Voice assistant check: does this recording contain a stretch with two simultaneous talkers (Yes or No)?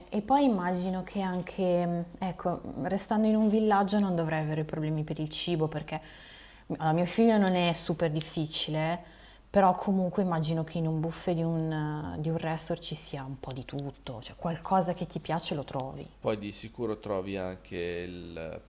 No